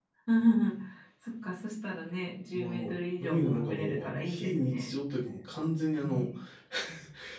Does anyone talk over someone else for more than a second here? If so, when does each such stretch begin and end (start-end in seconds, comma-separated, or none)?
2.5-4.9